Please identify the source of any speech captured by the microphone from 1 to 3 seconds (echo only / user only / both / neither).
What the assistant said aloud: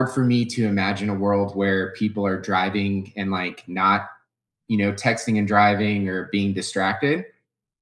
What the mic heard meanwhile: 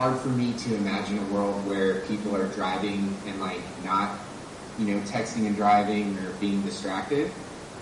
echo only